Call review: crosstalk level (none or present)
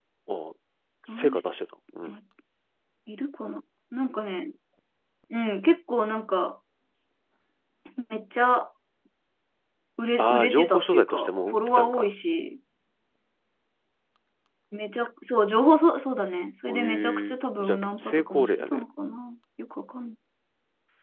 present